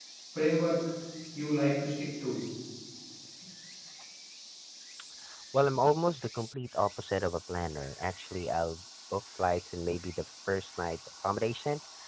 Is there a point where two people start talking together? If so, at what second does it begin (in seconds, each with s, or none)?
none